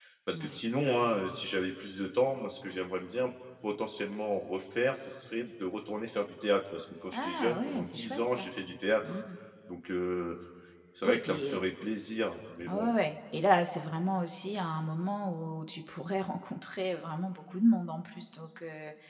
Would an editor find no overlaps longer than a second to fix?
No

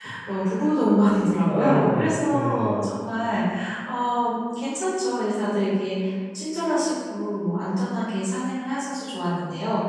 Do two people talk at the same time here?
Yes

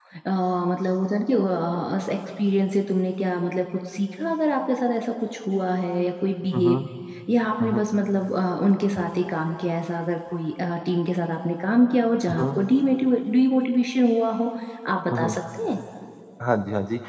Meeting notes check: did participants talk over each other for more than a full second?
No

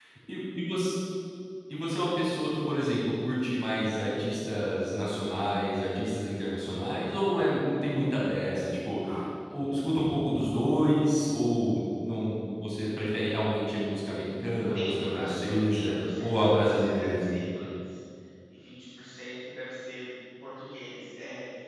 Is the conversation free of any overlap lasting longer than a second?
No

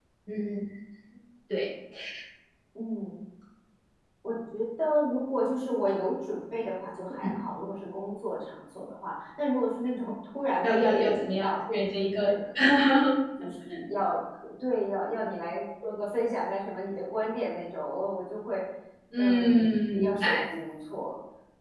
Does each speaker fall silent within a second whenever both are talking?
No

